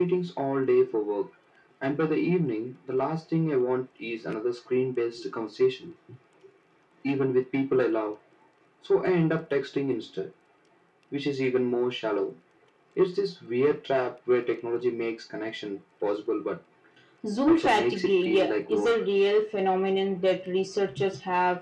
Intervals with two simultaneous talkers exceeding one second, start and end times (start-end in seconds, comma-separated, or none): 17.5-18.9